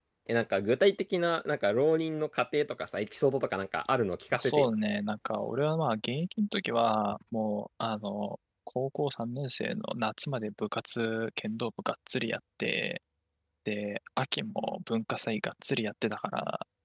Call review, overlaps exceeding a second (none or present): none